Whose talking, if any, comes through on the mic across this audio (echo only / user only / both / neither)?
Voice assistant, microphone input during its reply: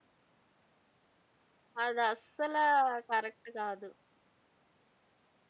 user only